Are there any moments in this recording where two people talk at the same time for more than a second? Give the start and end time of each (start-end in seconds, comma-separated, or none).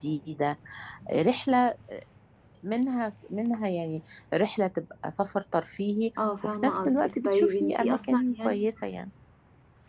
6.4-8.7